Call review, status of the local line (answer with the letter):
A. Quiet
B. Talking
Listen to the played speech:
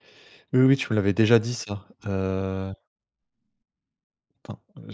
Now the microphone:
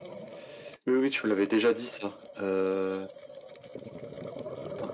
A